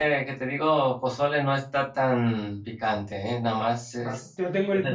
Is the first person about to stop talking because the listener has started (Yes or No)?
Yes